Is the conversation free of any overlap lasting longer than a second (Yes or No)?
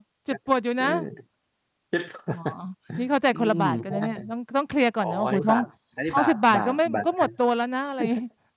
No